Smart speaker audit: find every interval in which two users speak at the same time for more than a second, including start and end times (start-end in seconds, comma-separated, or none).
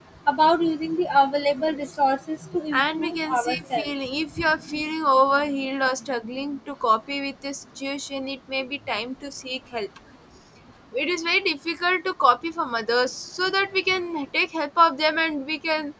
2.7-3.9